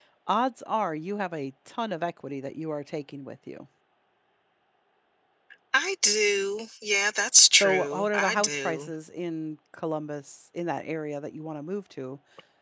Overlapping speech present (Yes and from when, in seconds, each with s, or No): Yes, from 7.6 s